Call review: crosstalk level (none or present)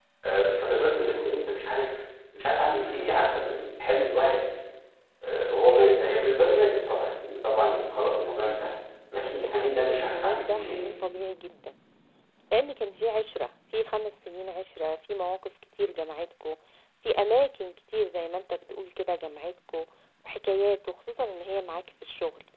present